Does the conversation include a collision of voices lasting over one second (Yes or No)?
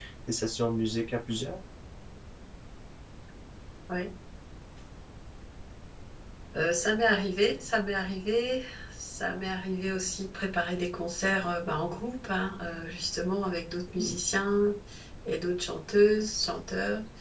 No